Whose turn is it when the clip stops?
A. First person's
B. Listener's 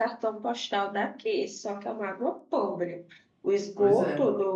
A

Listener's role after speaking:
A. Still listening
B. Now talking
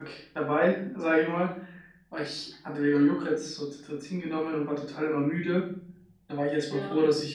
A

